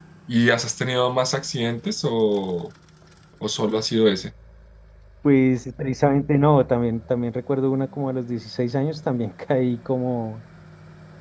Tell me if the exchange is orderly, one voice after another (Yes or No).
Yes